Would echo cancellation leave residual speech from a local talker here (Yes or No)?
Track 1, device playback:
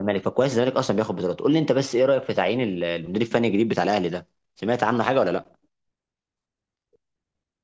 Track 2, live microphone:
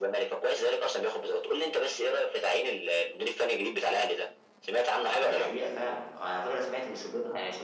Yes